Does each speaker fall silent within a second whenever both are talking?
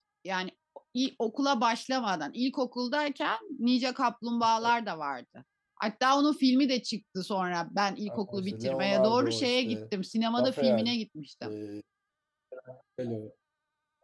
No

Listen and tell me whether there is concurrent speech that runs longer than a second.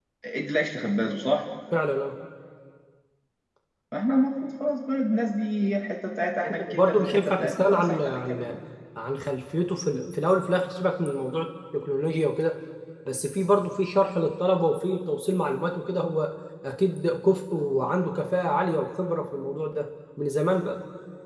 Yes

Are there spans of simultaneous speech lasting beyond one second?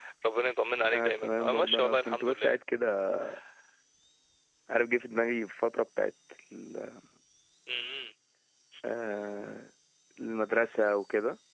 Yes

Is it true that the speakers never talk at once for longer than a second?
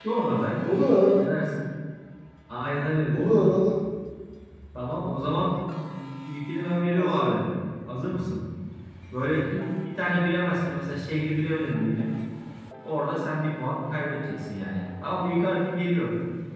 Yes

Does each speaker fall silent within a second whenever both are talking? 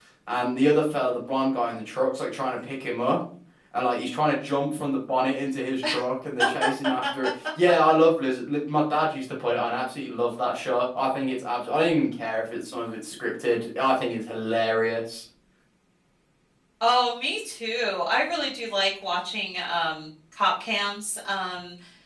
Yes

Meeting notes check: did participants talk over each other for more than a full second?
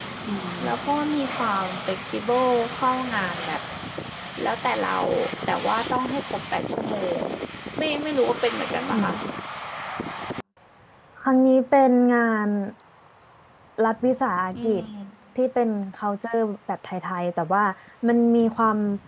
No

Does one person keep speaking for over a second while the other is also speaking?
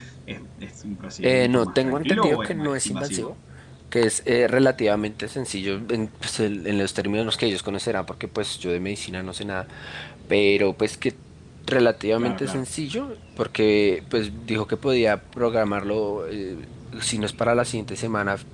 Yes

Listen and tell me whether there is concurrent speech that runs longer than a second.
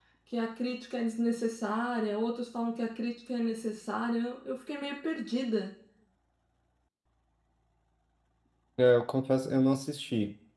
No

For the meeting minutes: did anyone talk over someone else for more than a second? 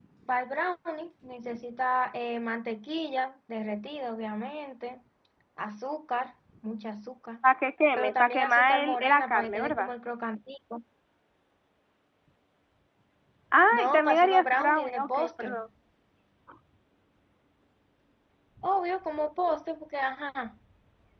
Yes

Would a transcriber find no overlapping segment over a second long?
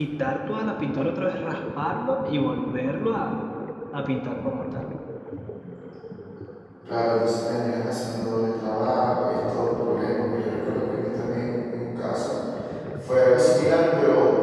Yes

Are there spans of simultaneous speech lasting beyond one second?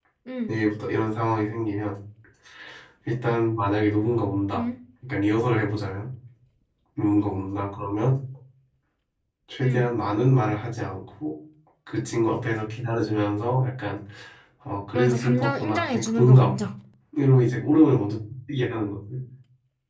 Yes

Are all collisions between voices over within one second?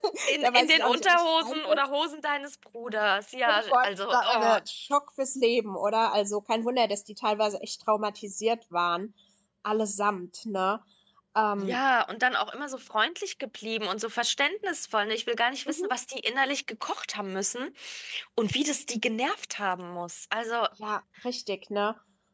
No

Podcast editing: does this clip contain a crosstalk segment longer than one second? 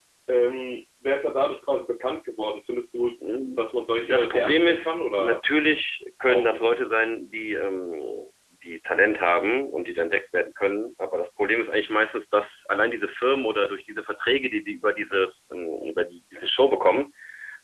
Yes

